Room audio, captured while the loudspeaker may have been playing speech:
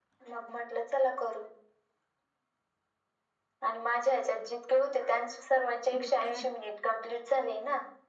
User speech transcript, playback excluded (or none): मिसळ